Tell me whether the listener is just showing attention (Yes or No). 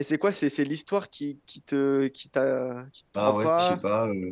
No